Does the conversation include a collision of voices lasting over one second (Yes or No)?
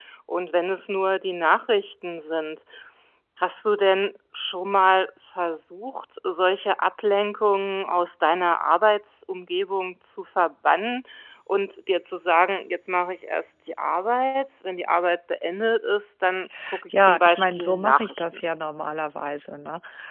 Yes